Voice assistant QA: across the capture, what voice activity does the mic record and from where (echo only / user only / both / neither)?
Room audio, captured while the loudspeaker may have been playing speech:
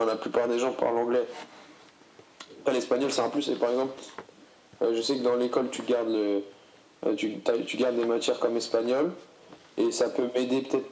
echo only